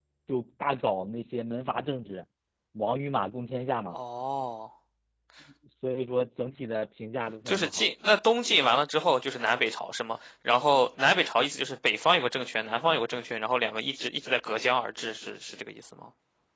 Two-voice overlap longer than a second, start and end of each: none

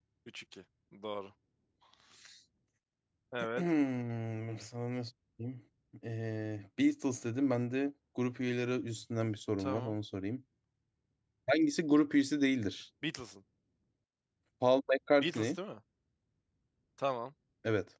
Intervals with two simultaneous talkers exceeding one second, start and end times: none

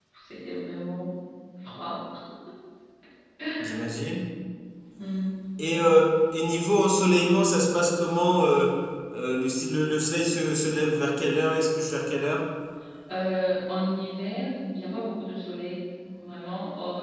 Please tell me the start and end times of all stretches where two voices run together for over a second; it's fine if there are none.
none

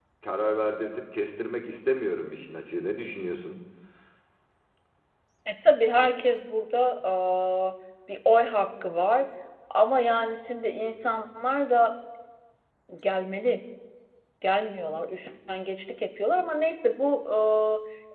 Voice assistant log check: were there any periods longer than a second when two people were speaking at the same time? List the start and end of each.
none

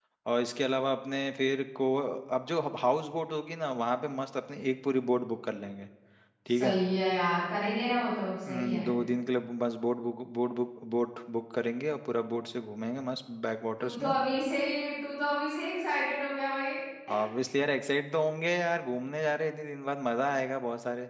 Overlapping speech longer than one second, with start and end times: none

